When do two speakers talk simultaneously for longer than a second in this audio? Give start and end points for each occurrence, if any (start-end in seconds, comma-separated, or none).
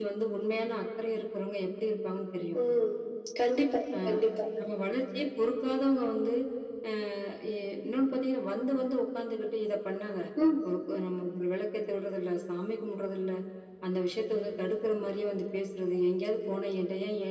none